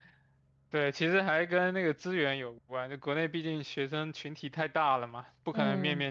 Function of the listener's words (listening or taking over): listening